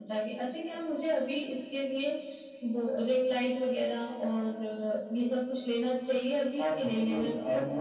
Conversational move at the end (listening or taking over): taking over